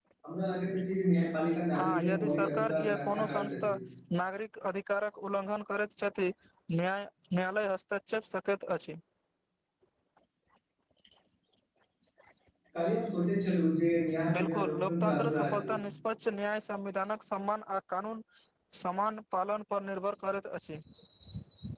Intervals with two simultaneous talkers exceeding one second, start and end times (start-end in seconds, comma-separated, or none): 1.8-3.7, 14.3-15.7